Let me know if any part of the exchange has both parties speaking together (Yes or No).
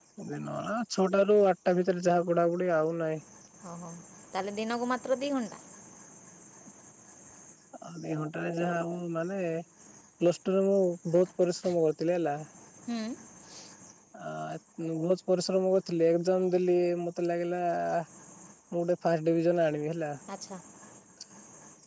No